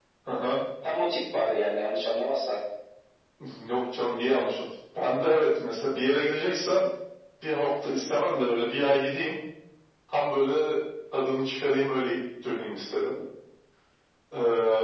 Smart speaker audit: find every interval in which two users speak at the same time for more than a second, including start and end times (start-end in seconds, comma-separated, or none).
none